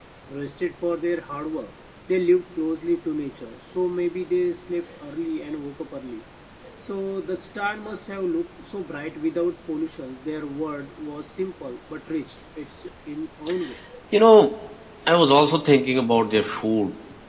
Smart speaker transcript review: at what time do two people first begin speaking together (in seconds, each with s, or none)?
none